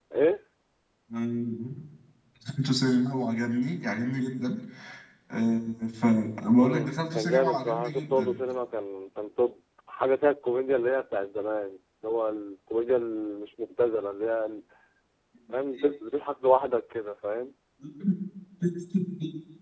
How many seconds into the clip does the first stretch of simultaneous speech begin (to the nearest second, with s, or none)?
7 s